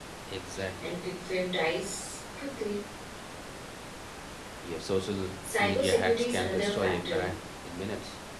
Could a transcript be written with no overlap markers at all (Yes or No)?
No